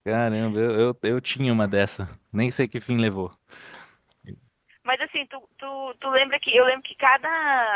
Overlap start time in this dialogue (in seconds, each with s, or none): none